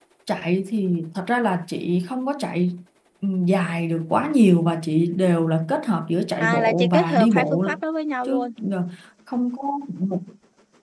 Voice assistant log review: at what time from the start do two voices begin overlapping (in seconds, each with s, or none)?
6.4 s